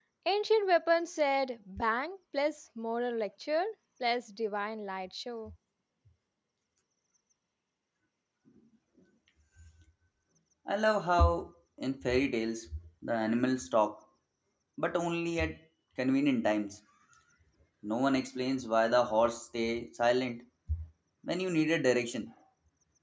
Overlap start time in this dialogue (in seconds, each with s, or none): none